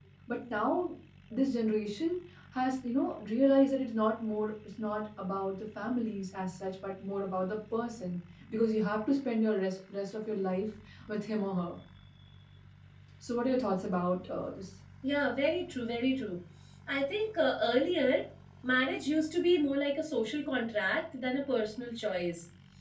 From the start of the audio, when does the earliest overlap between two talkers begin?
none

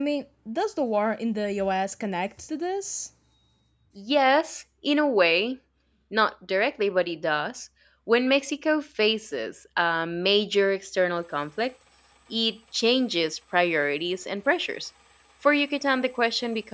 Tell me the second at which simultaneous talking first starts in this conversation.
none

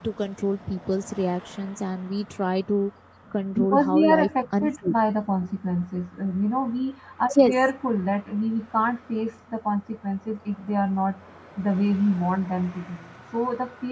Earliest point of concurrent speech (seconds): 3.6 s

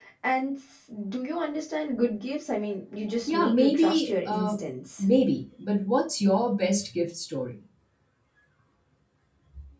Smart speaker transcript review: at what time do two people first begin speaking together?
3.3 s

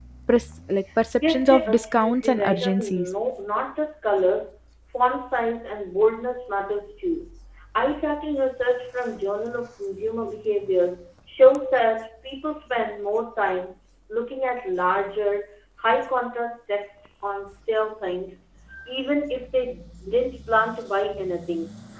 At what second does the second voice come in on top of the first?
1.3 s

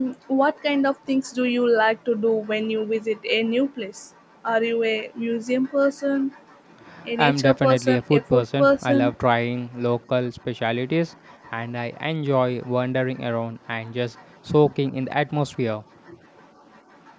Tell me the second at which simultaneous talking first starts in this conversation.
7.2 s

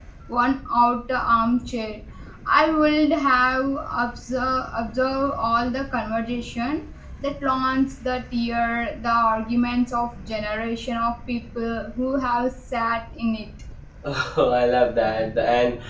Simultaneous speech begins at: none

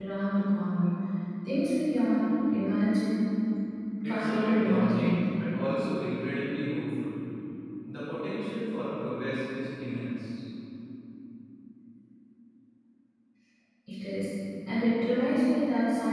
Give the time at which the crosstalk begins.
4.0 s

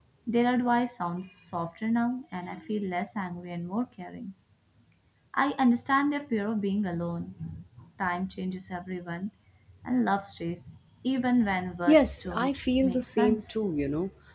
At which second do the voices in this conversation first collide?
11.9 s

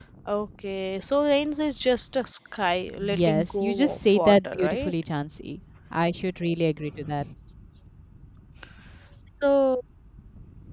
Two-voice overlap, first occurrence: 3.0 s

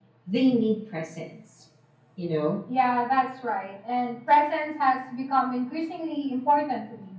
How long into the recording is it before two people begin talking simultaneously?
none

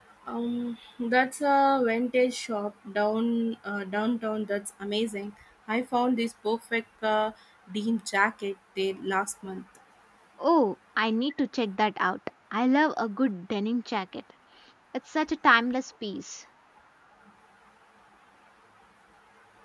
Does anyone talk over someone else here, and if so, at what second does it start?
none

